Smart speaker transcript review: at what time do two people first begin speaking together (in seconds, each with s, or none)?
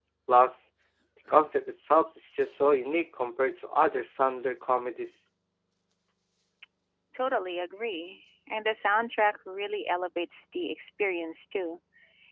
none